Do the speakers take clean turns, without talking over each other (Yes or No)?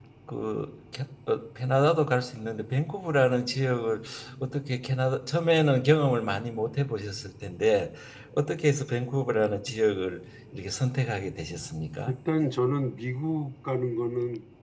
Yes